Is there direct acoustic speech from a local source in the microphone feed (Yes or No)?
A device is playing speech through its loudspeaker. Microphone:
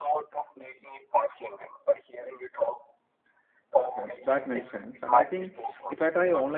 Yes